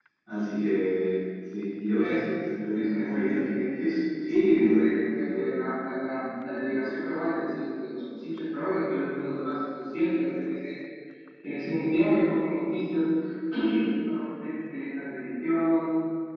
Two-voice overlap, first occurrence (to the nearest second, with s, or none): 2 s